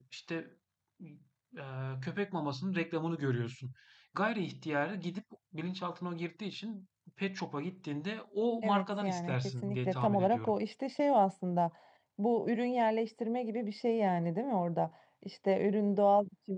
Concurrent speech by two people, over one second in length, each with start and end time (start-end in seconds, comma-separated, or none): 8.6-10.6